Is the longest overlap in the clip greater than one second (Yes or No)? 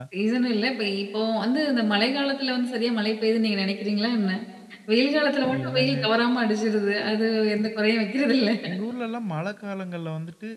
No